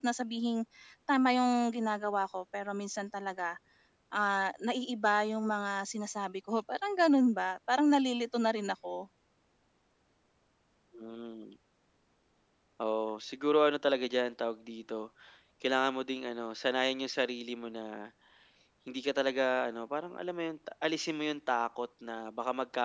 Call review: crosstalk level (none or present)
none